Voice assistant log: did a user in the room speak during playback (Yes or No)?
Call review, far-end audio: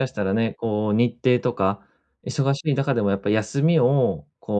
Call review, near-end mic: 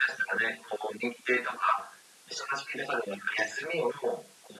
No